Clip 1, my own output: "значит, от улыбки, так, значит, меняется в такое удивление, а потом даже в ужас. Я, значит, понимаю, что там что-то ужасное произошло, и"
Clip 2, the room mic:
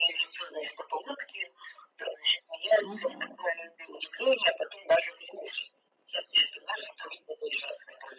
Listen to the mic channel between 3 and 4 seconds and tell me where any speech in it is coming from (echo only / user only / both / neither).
both